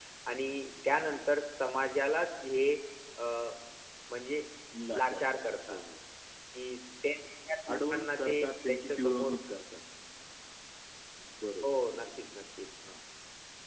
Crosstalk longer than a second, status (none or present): present